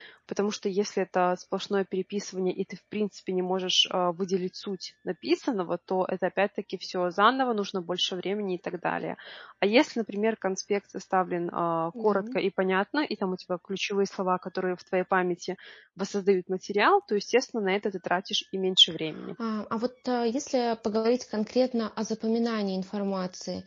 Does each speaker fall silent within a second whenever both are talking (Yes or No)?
Yes